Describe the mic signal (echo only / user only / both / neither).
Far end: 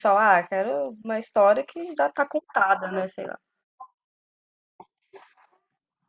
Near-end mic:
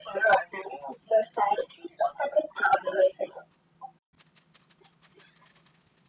echo only